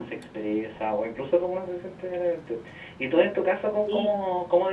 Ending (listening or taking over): listening